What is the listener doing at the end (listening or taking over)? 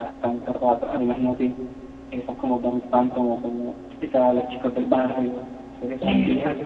taking over